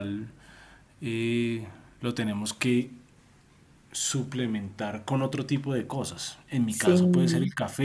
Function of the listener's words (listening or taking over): listening